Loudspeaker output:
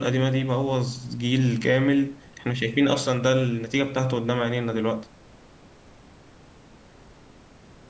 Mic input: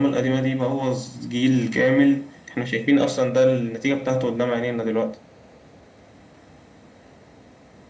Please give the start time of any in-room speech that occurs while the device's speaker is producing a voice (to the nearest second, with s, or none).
none